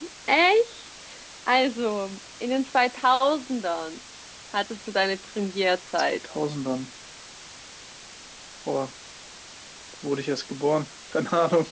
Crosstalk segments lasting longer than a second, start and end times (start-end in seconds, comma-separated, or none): none